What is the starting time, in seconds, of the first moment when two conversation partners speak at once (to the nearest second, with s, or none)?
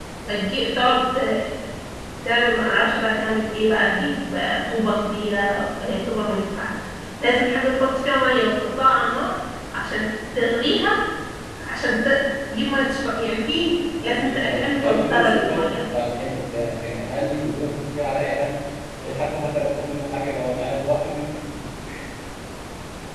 14 s